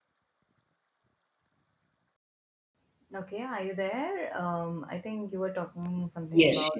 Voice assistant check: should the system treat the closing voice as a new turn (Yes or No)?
Yes